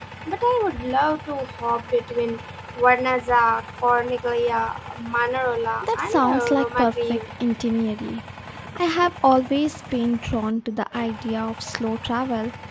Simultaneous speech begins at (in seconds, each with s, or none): 5.8 s